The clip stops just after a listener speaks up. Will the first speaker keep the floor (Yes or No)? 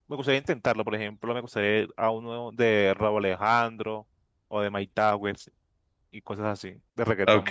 No